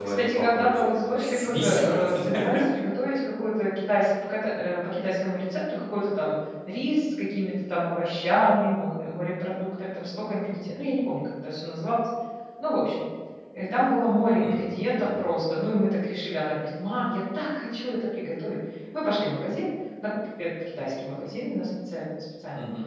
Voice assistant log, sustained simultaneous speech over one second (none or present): present